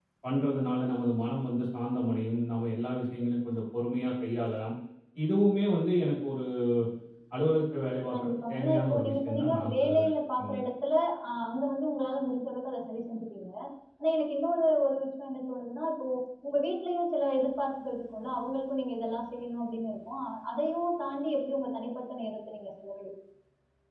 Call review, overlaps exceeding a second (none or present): present